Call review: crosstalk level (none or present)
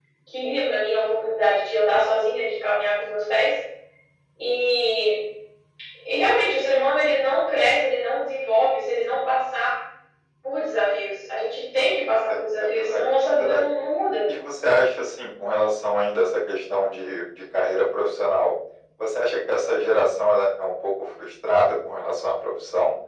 present